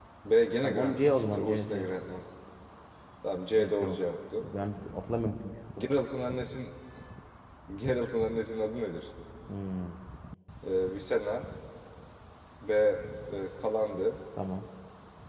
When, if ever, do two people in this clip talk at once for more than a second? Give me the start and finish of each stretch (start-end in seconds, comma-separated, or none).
0.6-1.9